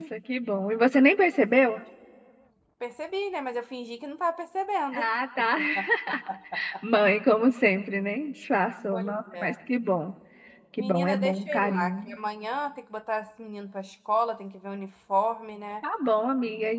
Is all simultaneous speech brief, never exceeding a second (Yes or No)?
No